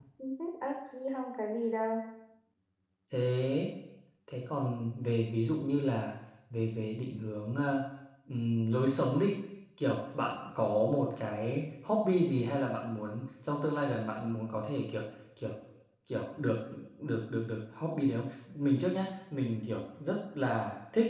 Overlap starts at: none

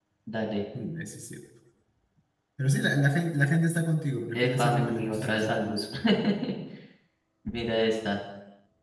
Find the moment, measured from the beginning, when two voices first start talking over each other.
4.3 s

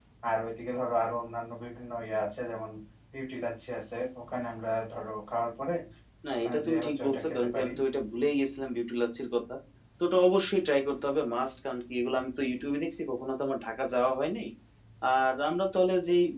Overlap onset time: 6.3 s

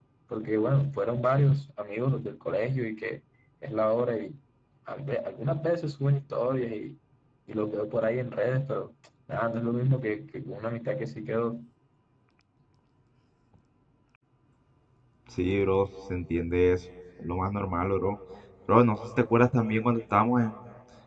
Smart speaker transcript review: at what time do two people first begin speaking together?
none

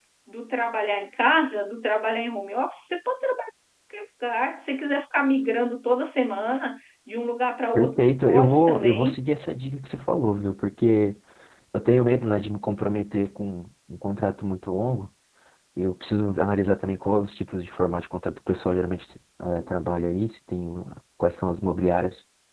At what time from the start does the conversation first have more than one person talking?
7.8 s

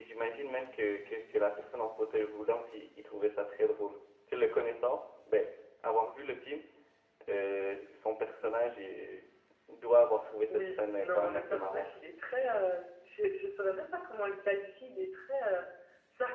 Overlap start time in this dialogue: 10.5 s

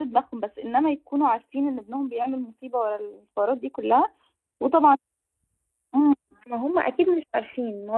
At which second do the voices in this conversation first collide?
none

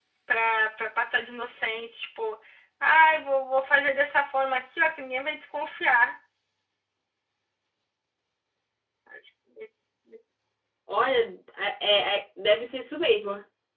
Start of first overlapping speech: none

